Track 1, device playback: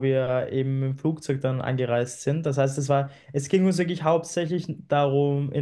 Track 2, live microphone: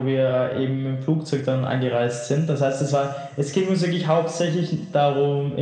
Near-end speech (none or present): none